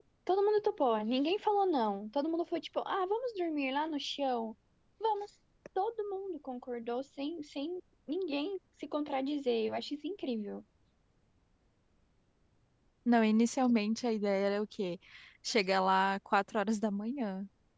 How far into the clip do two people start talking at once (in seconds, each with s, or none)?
none